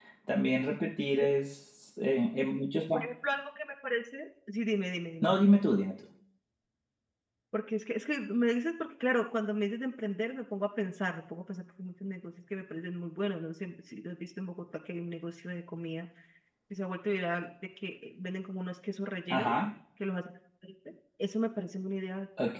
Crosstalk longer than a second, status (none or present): none